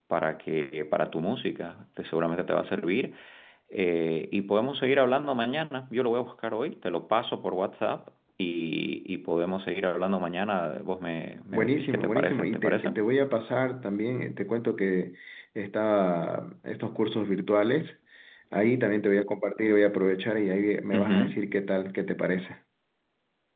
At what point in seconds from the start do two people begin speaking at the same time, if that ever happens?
11.5 s

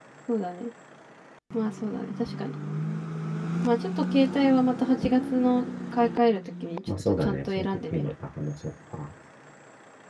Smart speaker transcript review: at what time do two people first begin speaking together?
6.9 s

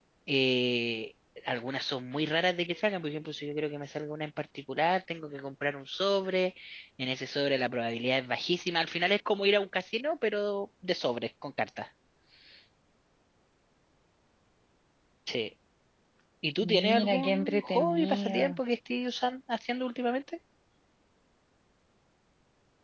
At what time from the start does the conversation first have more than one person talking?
16.6 s

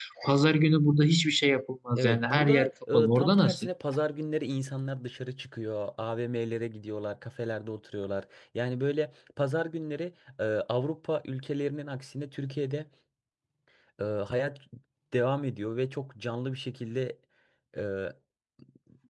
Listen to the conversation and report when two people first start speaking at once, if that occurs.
2.0 s

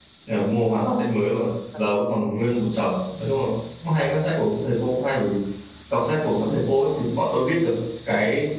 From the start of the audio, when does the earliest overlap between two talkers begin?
none

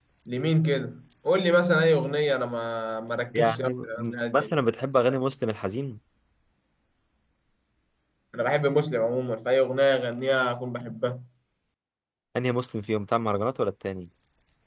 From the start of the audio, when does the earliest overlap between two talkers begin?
3.3 s

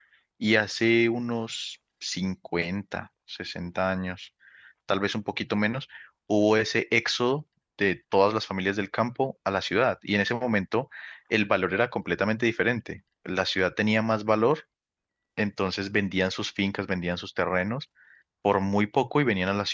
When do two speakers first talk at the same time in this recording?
none

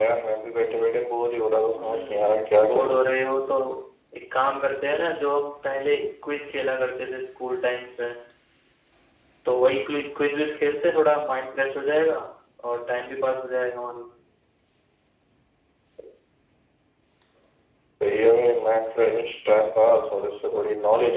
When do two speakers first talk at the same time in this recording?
1.7 s

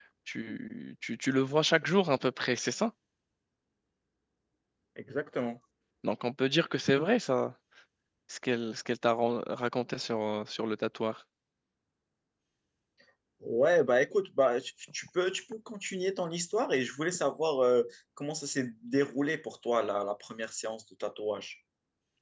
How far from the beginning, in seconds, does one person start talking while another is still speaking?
none

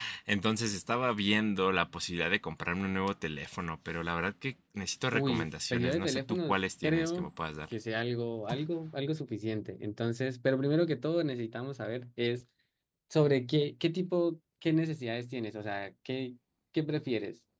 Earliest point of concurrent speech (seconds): 5.1 s

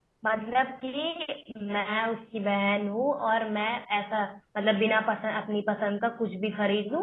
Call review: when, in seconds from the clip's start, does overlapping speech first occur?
none

